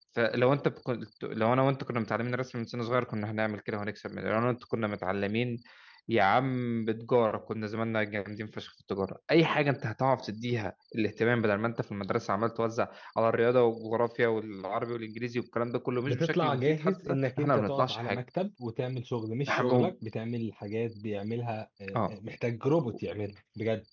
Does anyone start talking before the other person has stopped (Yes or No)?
Yes